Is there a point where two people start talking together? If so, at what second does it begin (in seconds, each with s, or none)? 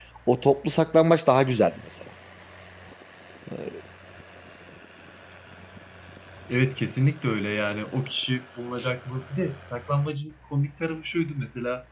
none